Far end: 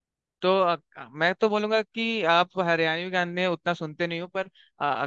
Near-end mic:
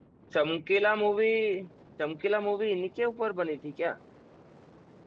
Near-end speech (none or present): present